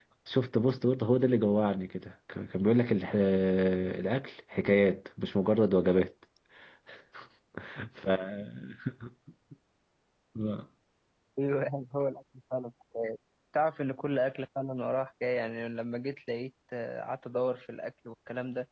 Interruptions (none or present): none